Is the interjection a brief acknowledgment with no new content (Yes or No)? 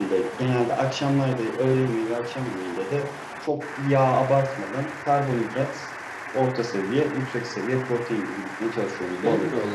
No